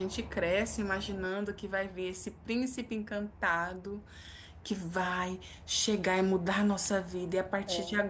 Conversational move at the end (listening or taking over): listening